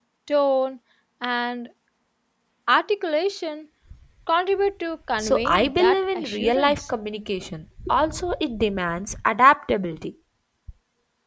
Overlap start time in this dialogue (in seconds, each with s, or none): 5.2 s